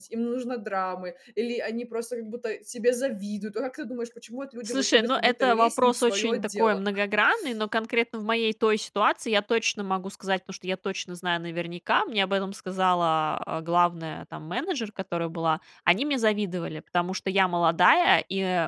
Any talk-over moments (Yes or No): Yes